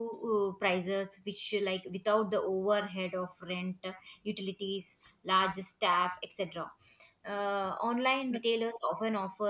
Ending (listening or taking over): listening